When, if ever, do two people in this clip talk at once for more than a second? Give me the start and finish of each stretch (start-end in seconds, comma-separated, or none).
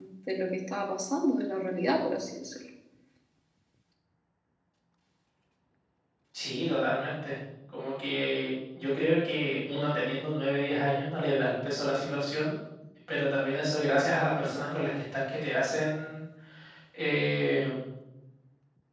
none